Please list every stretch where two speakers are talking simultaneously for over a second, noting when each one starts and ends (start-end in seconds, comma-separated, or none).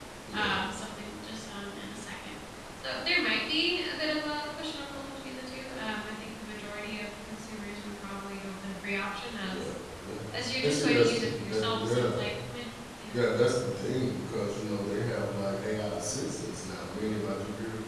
10.6-12.2